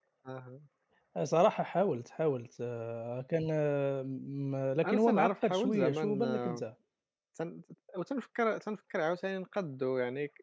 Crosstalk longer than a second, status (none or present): present